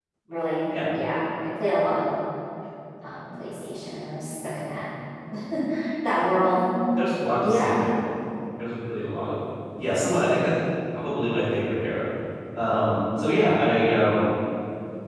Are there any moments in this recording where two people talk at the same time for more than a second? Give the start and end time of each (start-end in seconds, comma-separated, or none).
none